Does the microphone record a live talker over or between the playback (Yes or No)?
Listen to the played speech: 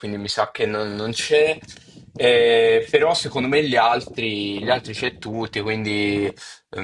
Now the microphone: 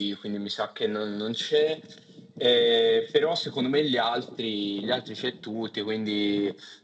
No